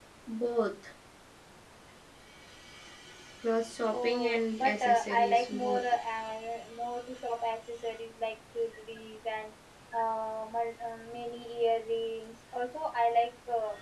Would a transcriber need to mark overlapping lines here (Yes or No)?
Yes